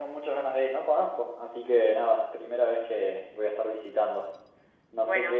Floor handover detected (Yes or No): No